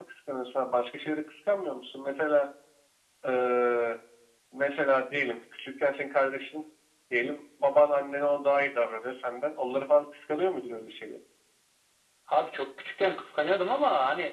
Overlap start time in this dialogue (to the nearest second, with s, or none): none